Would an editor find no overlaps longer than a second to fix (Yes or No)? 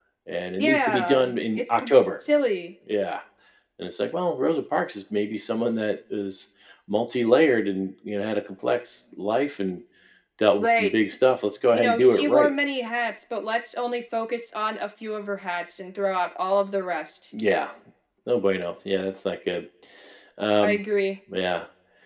No